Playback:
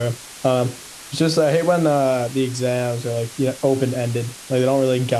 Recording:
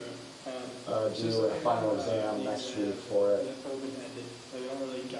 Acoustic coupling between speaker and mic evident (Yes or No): Yes